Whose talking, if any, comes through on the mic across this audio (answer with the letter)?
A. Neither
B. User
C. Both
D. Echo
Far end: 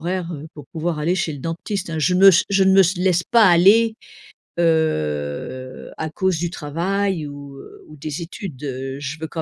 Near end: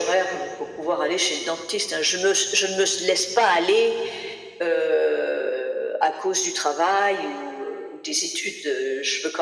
D